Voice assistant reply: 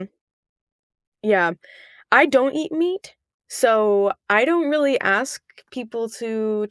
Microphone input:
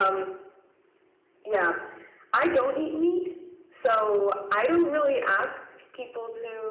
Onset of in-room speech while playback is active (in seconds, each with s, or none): none